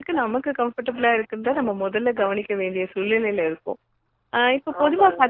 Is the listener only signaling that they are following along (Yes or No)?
Yes